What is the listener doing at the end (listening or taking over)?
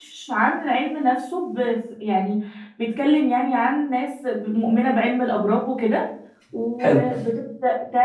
listening